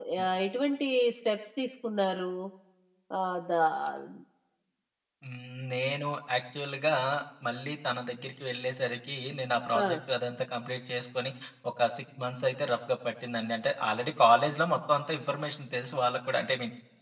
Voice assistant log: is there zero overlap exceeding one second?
Yes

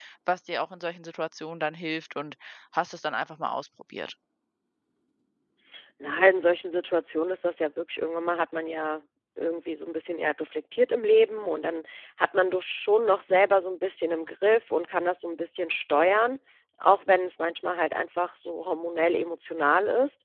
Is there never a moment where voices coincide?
Yes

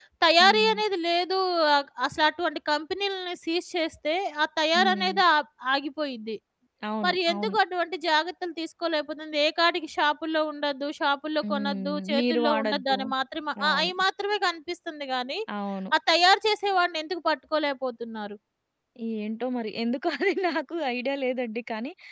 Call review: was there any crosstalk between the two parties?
Yes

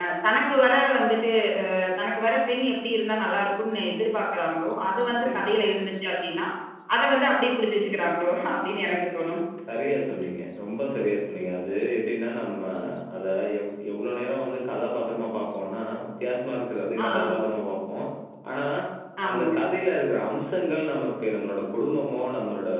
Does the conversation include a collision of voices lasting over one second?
No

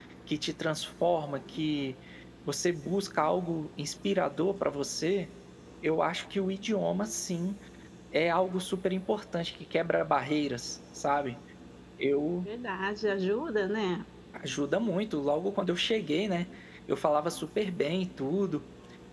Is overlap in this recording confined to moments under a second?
Yes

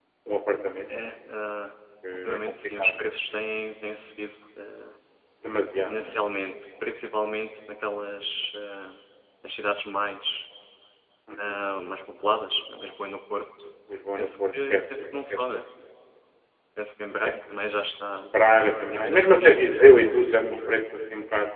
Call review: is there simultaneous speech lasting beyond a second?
Yes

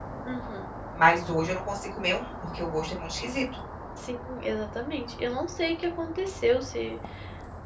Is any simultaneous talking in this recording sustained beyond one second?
No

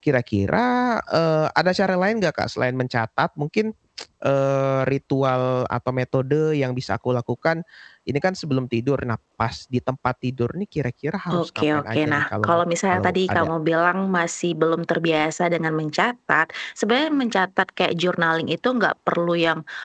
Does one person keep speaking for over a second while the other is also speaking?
Yes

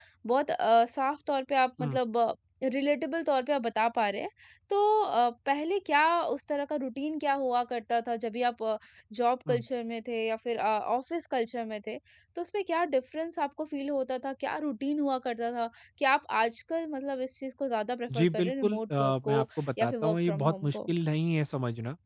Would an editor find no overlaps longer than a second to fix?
No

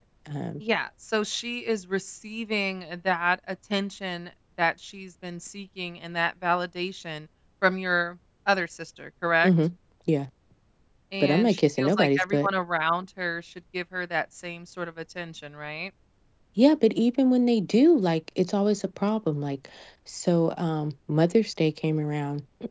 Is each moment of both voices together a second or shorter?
No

